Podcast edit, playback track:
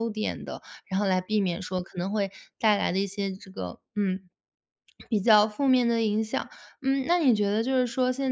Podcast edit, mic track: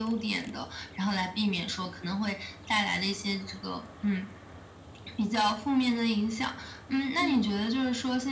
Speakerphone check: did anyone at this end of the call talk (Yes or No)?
Yes